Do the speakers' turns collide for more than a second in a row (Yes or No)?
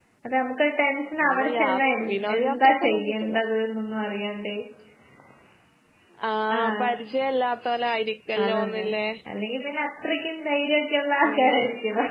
Yes